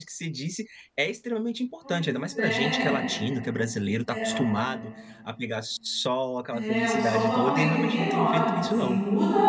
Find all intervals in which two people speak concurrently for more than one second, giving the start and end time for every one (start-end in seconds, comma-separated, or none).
6.5-9.0